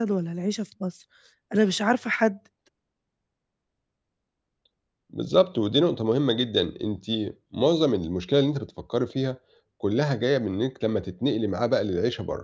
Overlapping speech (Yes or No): No